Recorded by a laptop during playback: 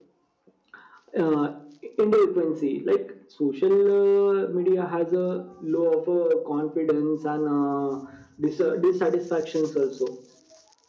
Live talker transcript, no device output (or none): none